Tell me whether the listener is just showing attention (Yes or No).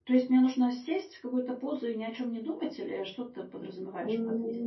No